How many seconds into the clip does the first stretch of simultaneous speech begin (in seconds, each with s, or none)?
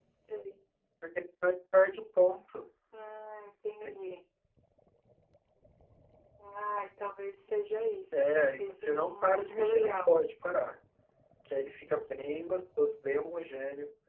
8.1 s